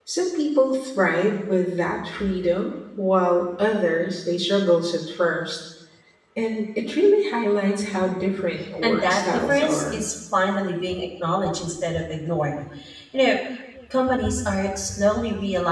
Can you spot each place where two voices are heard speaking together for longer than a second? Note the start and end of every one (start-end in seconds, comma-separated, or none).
8.8-10.0